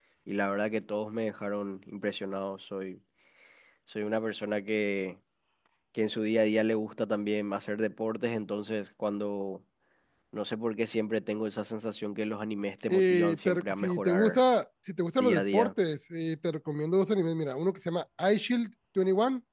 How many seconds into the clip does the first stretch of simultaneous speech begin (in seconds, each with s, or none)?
12.9 s